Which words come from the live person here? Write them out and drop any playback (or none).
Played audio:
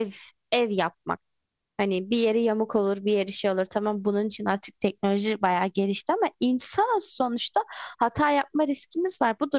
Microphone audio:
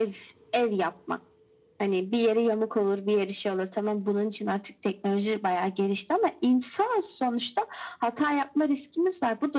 none